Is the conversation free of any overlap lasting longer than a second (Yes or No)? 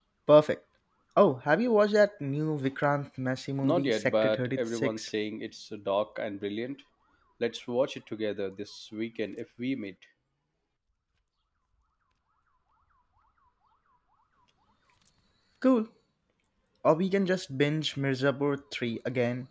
No